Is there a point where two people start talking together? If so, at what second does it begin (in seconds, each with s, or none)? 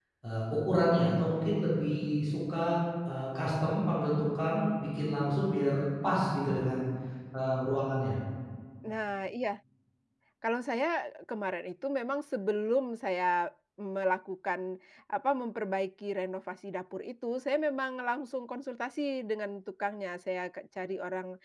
none